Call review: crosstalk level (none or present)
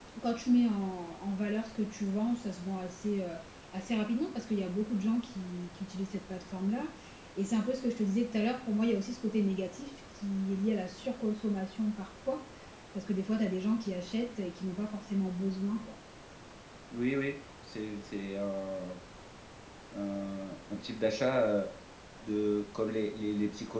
none